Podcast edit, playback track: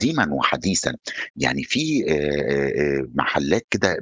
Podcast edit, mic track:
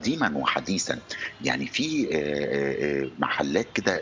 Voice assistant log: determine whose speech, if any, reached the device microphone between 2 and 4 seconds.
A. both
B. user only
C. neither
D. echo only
D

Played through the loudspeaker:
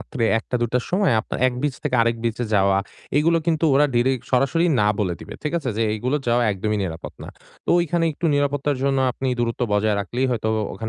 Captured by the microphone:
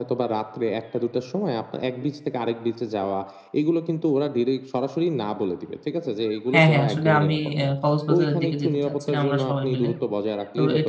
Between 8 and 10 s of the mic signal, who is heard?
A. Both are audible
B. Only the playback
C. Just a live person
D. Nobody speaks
A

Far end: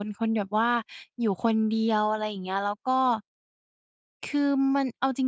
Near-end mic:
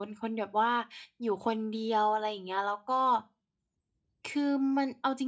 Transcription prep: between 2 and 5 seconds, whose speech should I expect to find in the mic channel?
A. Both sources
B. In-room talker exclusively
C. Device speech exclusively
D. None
C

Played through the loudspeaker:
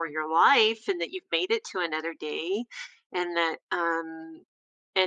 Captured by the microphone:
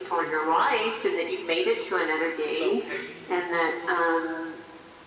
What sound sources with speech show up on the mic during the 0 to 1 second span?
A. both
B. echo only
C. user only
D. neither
B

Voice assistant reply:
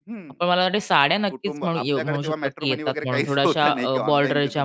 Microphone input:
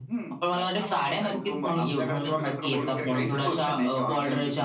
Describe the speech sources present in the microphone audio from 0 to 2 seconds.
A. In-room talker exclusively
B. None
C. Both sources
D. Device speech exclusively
C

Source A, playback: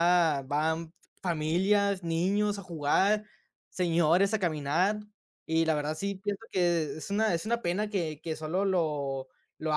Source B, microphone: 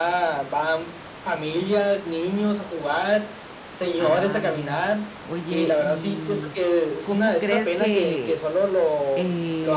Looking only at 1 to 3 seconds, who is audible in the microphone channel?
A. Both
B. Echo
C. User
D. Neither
B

